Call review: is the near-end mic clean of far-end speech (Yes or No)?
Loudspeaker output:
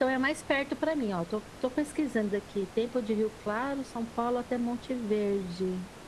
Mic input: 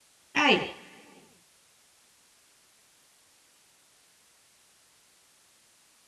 Yes